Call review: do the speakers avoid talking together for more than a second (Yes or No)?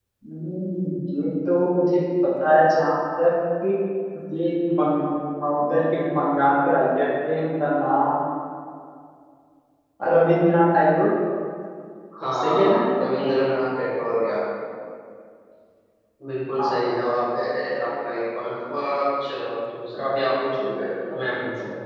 Yes